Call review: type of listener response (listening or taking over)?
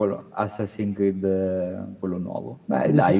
taking over